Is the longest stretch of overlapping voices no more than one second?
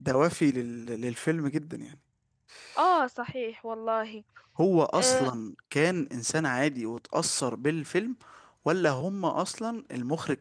Yes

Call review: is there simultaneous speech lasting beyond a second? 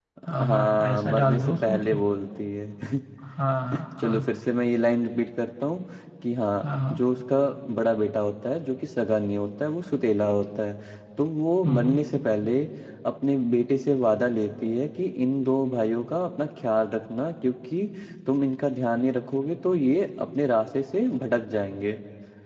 Yes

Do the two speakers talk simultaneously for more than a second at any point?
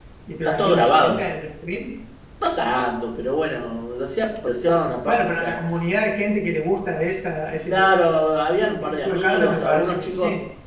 Yes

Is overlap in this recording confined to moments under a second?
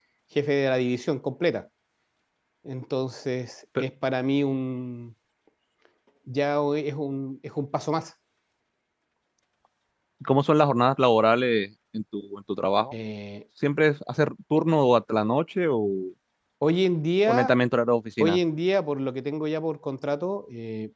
Yes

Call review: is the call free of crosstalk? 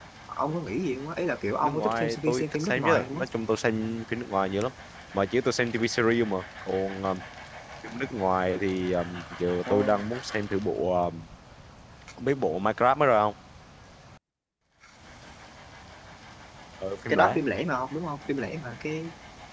No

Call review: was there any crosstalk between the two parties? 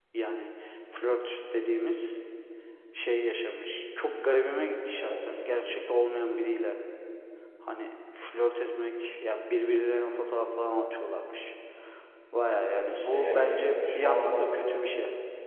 Yes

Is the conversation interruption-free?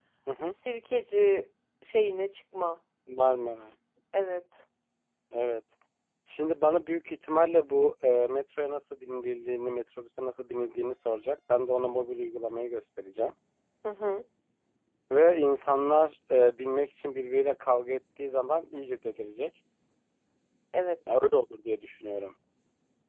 Yes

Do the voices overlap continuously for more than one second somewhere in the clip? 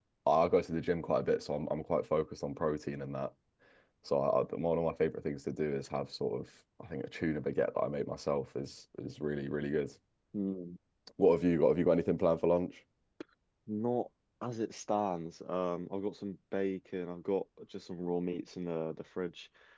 No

